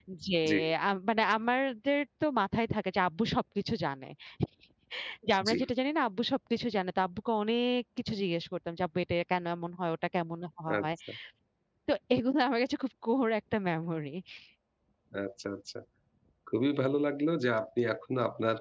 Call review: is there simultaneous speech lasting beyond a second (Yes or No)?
No